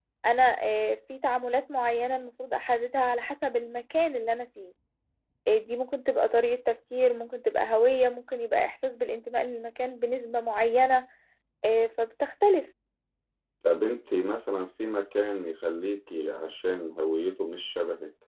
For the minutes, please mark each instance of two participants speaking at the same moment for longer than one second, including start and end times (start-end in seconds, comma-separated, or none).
none